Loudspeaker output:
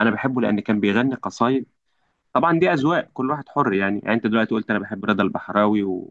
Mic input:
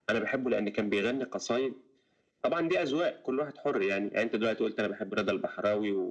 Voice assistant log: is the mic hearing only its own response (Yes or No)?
Yes